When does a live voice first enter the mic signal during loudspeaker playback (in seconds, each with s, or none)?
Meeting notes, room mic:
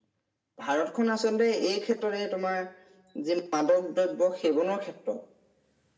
none